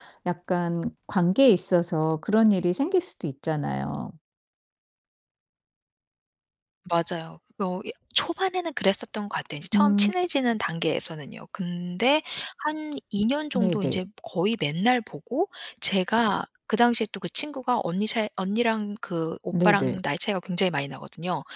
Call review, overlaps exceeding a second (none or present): none